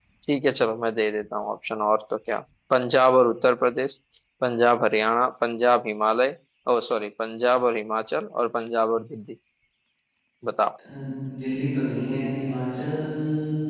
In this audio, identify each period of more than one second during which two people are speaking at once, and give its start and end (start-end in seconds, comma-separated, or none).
none